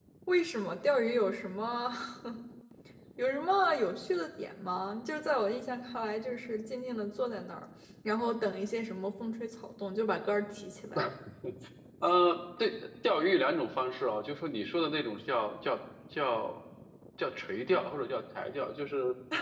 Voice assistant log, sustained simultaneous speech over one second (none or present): none